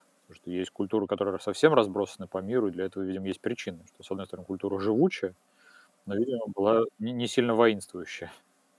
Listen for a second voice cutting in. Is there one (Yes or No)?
No